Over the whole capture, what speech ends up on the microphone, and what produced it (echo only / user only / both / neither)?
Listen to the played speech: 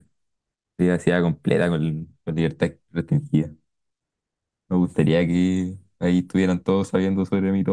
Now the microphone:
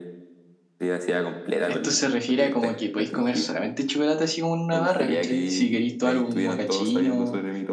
both